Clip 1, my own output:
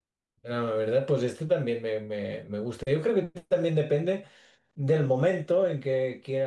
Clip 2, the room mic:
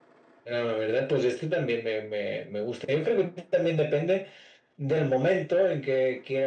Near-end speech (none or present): none